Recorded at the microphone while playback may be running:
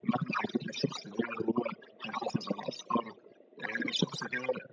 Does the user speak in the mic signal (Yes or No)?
No